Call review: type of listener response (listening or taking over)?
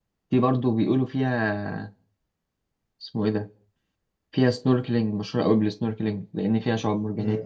taking over